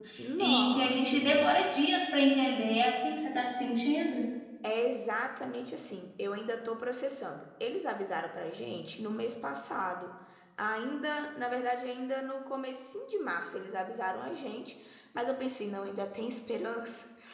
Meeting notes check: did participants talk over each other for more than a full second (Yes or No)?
Yes